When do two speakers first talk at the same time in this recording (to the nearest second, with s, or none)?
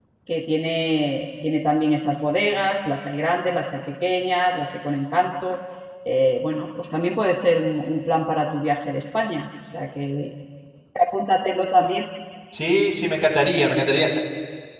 none